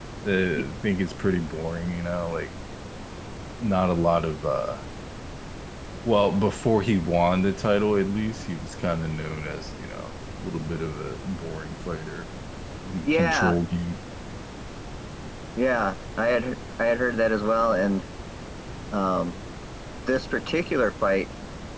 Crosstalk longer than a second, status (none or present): none